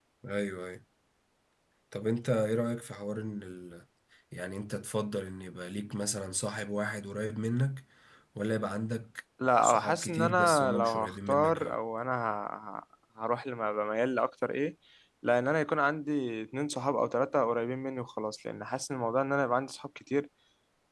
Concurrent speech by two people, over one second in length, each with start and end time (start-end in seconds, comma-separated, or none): 9.6-11.8